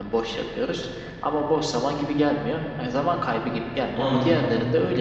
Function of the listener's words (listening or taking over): listening